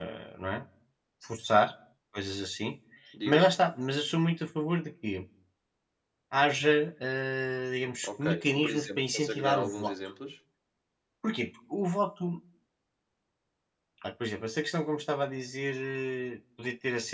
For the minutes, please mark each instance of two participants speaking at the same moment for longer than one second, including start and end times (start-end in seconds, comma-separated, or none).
8.0-9.9